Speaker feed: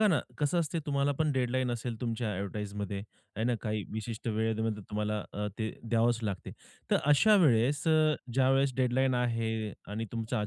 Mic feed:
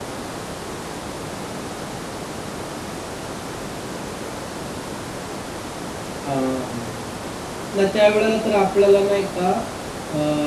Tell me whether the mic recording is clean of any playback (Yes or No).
Yes